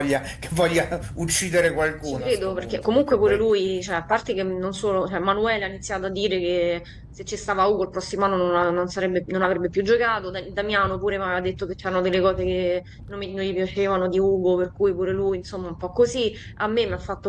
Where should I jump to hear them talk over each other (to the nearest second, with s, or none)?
2 s